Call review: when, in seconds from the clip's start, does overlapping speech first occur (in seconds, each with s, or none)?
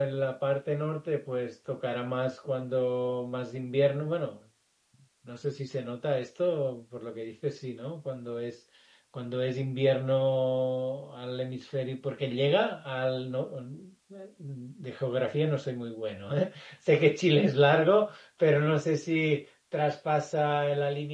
none